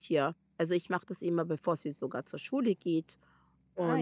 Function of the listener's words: listening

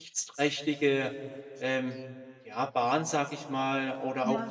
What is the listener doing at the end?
listening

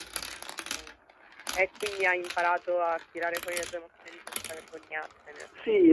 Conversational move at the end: taking over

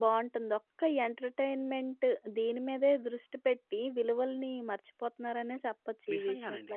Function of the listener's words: taking over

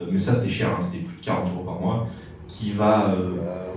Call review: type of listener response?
listening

